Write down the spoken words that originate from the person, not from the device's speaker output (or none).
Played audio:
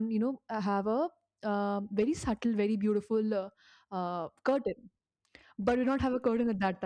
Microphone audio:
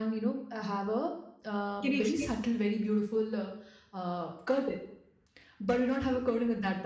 Can you explain?